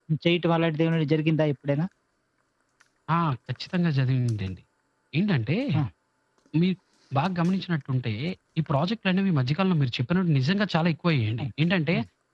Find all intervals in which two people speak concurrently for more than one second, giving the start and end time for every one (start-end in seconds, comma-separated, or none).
none